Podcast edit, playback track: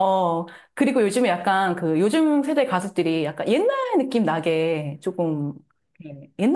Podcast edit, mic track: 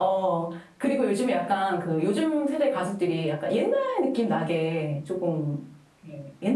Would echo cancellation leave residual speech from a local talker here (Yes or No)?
No